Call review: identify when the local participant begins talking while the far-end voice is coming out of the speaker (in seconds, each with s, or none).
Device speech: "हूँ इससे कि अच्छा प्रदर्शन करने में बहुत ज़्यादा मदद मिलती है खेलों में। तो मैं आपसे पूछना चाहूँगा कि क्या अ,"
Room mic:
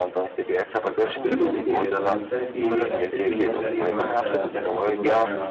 1.0 s